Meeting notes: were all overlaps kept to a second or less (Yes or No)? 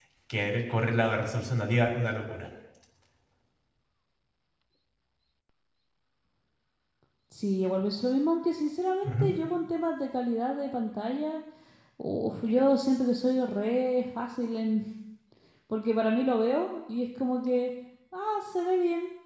Yes